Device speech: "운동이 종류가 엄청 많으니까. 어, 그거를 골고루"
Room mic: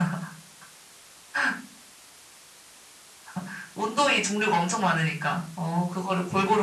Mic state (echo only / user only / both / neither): echo only